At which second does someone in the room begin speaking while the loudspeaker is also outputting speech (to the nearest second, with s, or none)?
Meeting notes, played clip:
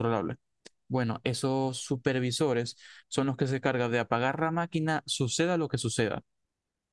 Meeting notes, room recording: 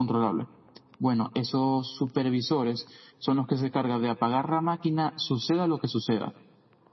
none